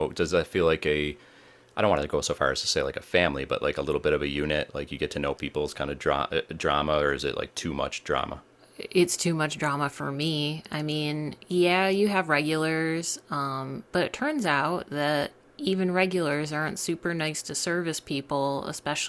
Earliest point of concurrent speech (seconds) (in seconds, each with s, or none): none